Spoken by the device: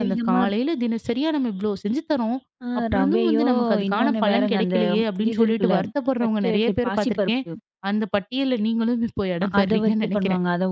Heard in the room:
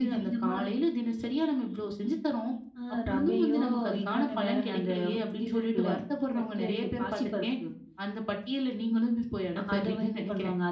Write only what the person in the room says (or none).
none